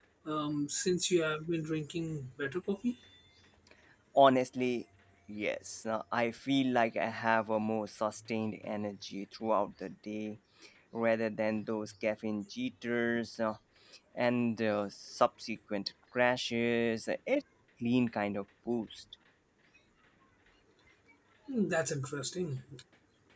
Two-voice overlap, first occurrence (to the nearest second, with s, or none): none